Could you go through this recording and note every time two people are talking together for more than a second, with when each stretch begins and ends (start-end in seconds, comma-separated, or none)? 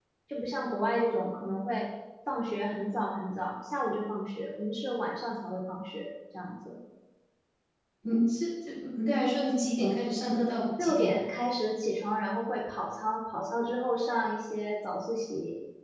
none